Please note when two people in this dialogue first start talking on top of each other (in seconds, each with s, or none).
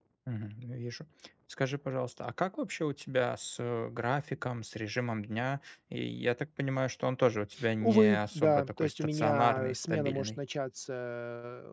7.6 s